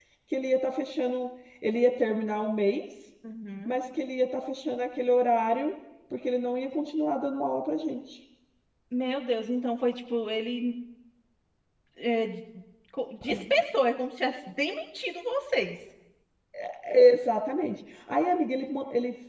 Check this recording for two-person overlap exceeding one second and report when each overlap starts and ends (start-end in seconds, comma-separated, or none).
none